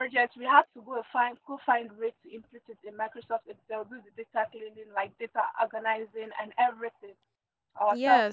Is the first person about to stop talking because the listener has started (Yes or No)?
Yes